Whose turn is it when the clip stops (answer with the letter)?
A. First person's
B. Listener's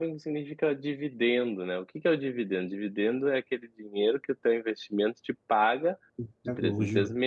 A